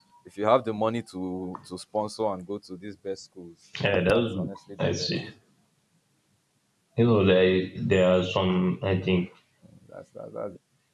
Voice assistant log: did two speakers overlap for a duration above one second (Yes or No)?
Yes